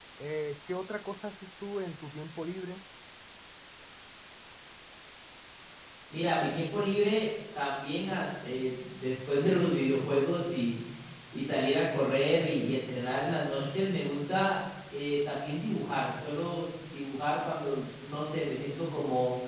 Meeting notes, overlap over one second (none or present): none